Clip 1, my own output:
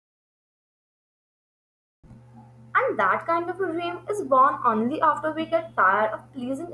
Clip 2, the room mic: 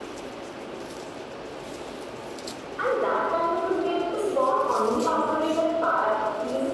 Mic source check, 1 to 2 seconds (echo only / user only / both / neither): neither